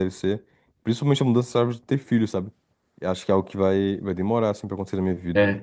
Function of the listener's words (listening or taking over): taking over